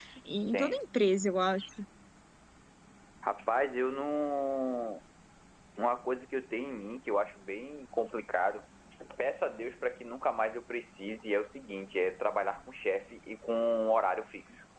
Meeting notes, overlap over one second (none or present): none